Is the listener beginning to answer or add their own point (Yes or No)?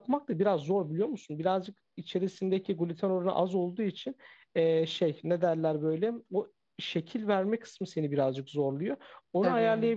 No